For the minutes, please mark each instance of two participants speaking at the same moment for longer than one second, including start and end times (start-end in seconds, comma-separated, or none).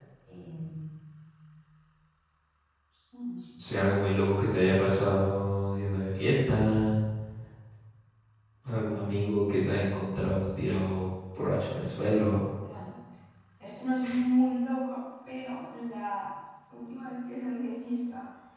none